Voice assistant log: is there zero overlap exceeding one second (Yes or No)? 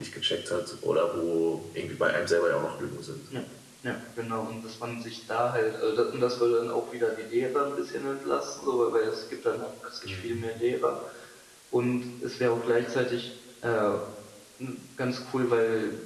Yes